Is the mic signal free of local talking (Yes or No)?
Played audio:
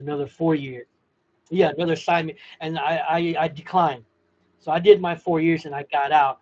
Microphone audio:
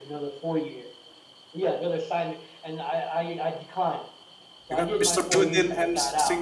No